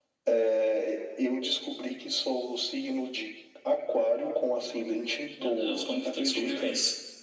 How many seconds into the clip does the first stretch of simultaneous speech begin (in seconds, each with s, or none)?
5.4 s